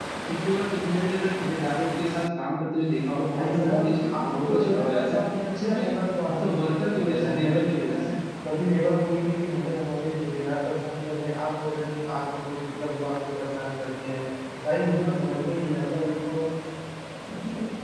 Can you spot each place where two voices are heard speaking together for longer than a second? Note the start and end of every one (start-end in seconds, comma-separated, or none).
3.3-5.2, 6.3-8.0